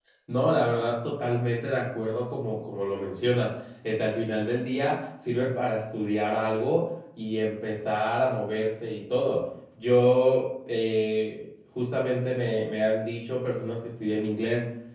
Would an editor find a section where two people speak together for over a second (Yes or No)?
No